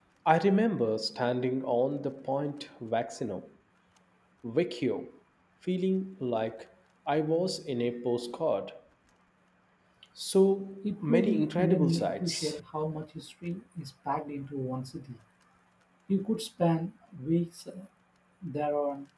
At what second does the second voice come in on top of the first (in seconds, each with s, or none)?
10.8 s